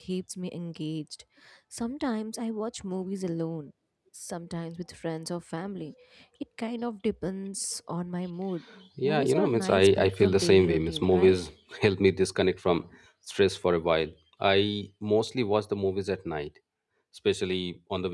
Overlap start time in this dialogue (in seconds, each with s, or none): 9.0 s